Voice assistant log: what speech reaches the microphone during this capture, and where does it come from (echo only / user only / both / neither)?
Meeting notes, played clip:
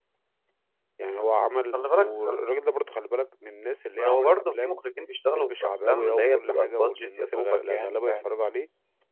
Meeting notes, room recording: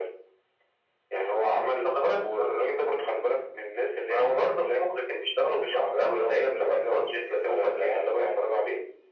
echo only